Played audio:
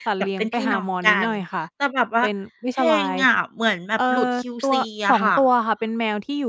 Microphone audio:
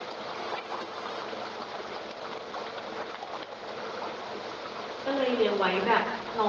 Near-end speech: present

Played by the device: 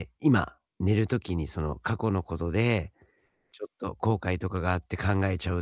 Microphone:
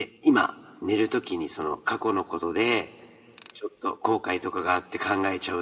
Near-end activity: none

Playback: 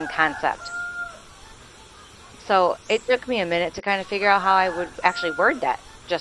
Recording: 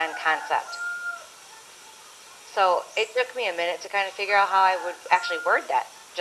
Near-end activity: none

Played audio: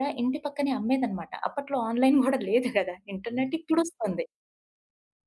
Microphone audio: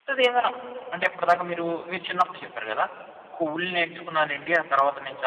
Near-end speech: present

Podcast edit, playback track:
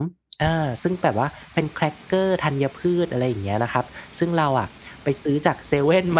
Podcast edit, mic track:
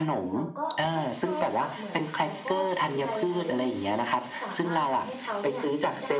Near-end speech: present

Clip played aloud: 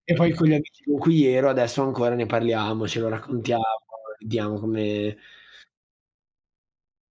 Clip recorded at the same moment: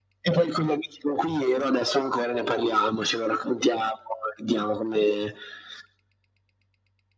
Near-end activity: none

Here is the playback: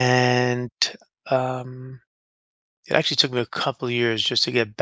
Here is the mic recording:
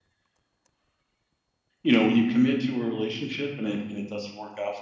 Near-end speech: present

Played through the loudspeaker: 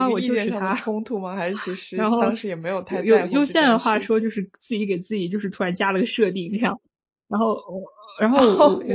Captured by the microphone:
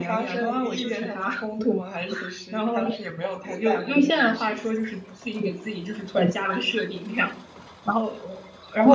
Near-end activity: none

